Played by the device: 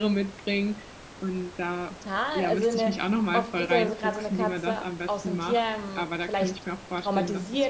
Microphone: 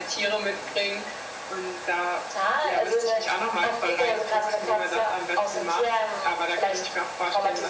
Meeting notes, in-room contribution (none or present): none